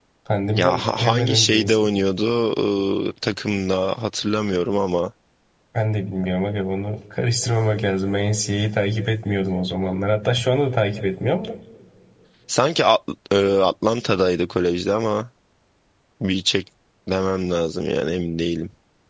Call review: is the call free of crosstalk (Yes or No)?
No